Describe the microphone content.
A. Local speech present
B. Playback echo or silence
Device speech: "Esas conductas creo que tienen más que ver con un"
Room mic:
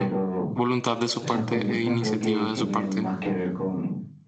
A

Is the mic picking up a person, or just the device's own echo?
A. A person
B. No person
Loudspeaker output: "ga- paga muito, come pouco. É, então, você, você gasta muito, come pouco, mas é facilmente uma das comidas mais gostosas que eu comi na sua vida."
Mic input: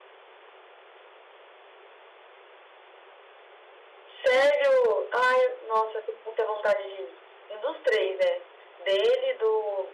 A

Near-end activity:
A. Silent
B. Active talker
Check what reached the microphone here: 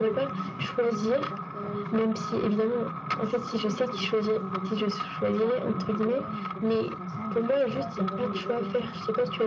B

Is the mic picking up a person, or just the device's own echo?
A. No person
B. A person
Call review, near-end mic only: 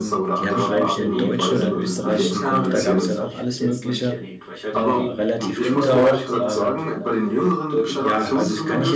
B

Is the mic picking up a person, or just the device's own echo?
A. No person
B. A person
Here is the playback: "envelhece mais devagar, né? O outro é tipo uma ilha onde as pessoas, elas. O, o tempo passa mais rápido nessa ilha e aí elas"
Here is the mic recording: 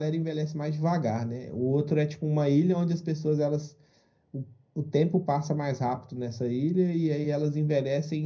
A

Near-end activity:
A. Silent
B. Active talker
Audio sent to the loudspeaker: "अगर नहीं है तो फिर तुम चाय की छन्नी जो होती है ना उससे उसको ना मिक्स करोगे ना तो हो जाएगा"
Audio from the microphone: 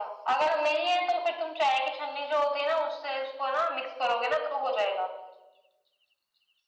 A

